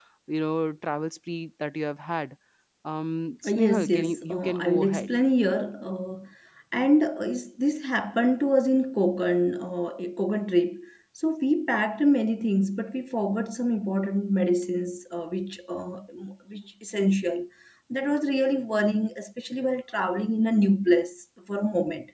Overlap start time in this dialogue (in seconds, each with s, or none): 3.5 s